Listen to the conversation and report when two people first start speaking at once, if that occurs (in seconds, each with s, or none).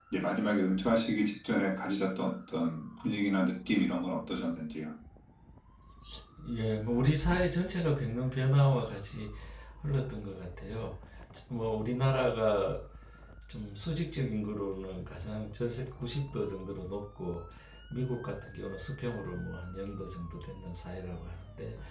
none